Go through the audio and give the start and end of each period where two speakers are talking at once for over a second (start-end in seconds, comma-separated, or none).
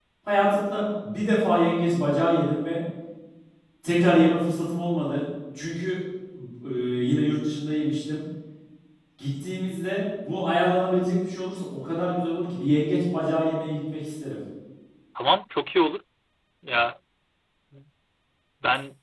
none